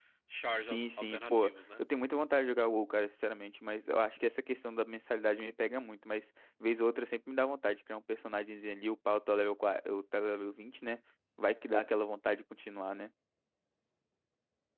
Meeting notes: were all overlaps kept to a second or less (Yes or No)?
No